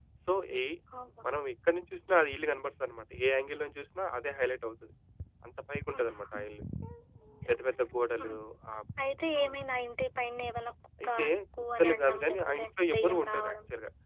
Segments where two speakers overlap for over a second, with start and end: 11.8-13.6

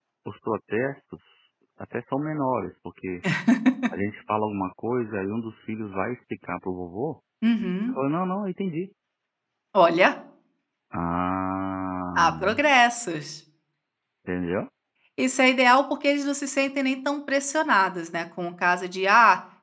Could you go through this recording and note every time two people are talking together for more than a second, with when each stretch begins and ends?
none

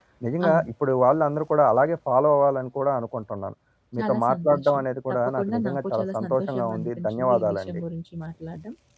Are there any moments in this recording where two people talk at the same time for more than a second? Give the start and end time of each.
4.0-7.8

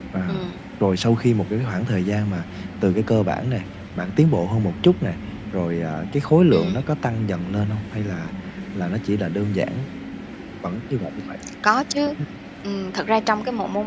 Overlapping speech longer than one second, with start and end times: none

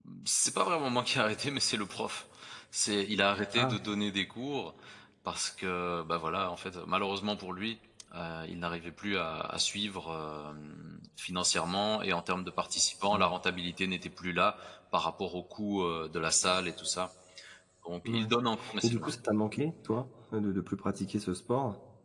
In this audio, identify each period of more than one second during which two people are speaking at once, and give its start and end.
none

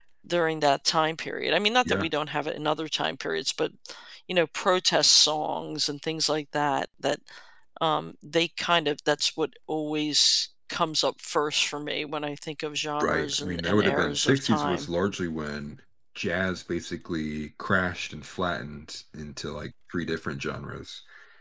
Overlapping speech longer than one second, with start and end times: 13.0-14.9

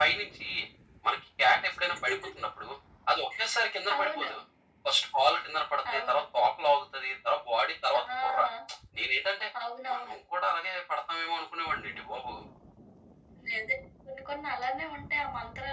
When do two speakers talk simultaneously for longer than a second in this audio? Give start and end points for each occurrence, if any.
none

